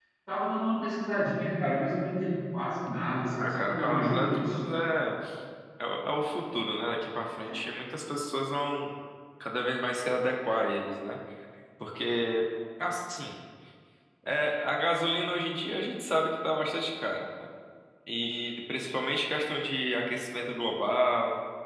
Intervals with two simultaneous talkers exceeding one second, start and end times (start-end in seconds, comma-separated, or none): 3.4-4.6